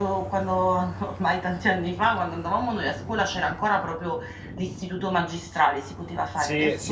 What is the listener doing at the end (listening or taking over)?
taking over